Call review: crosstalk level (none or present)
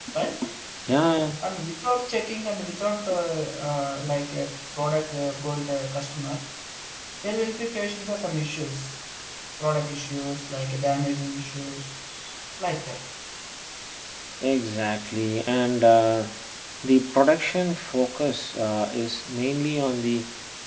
none